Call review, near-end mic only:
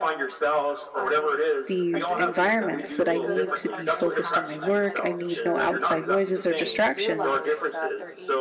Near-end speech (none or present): present